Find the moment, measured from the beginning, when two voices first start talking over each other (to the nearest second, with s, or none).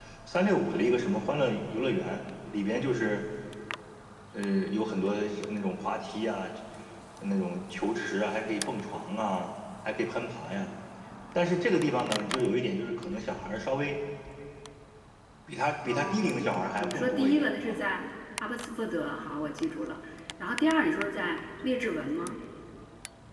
16 s